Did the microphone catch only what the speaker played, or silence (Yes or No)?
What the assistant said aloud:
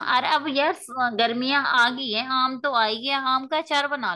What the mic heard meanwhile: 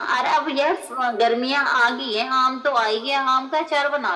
Yes